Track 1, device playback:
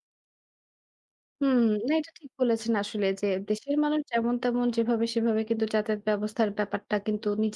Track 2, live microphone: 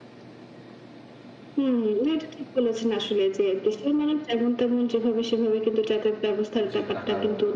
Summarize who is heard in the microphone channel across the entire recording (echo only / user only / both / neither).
both